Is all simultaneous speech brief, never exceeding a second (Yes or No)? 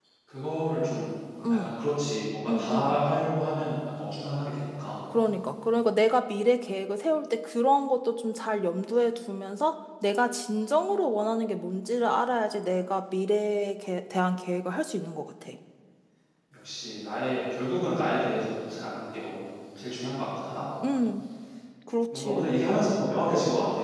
Yes